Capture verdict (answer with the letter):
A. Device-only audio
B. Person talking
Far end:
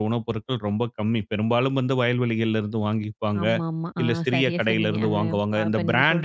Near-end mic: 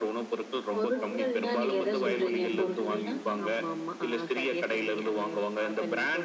B